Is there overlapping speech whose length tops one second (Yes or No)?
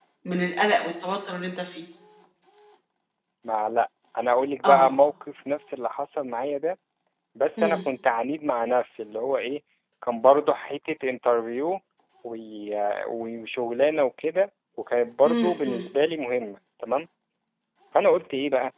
No